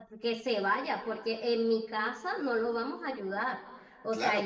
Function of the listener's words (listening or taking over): taking over